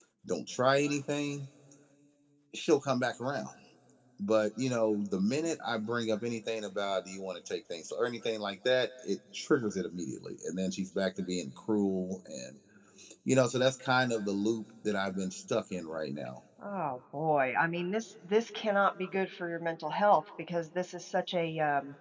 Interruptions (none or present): none